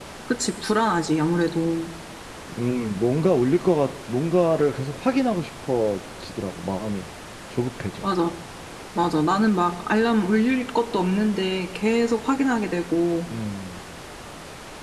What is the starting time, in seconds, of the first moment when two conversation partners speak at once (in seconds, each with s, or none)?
none